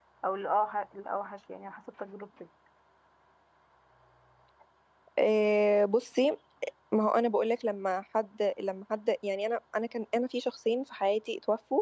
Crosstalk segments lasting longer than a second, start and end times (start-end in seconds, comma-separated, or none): none